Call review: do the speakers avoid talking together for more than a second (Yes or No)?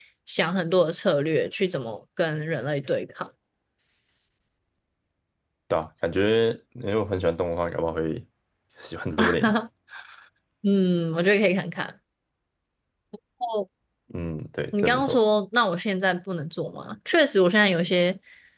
Yes